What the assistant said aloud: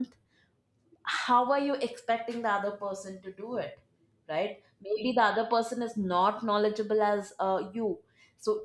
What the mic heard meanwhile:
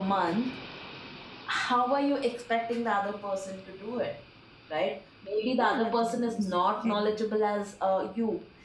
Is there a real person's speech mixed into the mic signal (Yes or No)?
Yes